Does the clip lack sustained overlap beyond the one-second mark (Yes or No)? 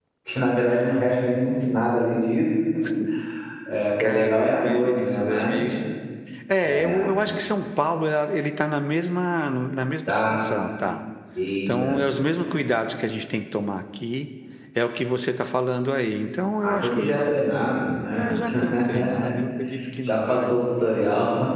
No